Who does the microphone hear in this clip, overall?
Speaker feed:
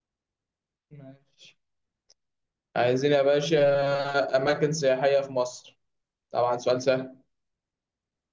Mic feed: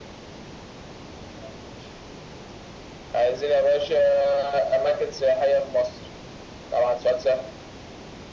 echo only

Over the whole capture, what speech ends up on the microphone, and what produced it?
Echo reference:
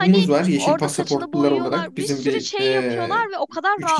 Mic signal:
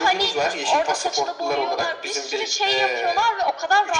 echo only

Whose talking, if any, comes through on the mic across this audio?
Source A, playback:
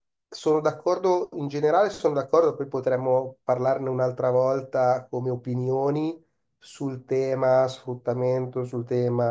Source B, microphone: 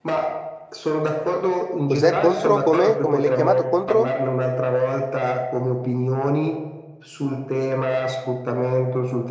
both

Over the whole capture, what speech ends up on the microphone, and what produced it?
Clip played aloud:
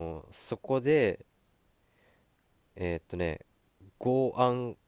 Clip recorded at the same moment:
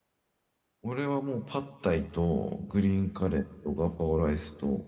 user only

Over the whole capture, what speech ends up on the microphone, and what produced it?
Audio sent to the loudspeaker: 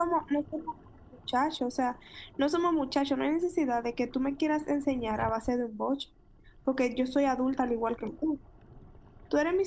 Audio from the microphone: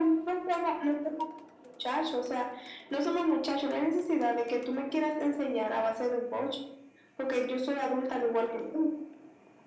echo only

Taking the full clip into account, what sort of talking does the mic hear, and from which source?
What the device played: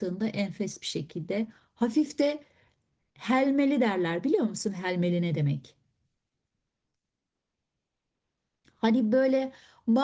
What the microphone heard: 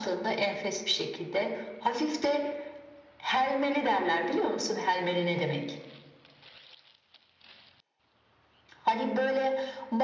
echo only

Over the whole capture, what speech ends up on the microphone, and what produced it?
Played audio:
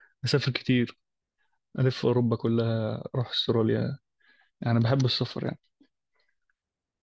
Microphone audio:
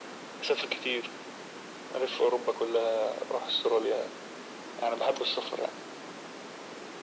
echo only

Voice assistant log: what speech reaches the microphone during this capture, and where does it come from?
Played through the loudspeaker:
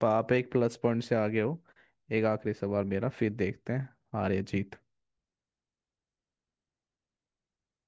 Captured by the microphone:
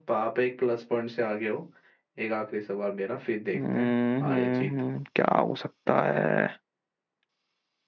both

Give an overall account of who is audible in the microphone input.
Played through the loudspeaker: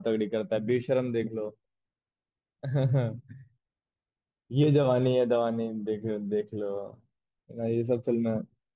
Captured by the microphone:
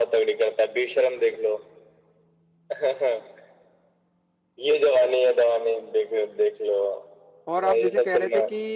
both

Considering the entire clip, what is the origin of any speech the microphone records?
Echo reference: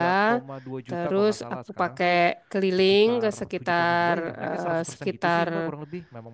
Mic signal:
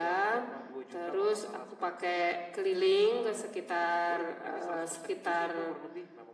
echo only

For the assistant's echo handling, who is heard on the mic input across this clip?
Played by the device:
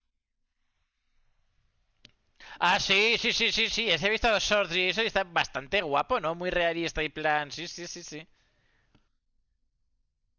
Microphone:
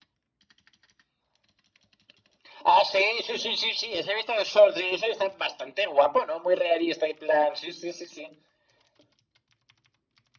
echo only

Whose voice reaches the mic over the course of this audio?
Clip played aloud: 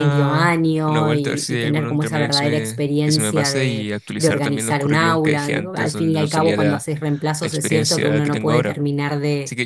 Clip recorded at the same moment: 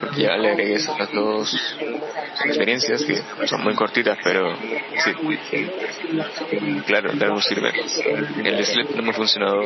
both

